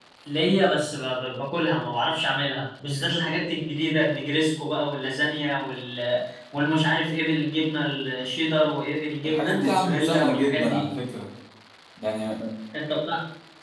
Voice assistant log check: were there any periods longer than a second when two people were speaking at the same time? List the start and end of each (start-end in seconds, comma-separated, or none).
9.2-10.8